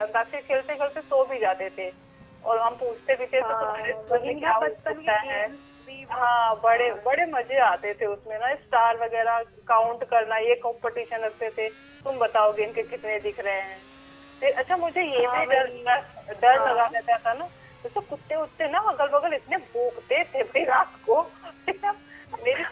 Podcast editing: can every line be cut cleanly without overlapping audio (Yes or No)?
No